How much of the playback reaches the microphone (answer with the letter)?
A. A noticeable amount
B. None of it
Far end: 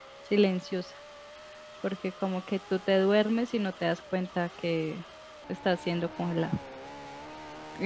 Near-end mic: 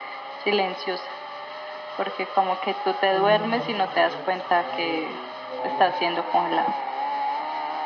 A